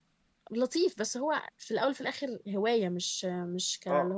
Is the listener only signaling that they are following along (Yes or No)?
No